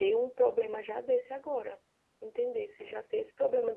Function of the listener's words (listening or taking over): listening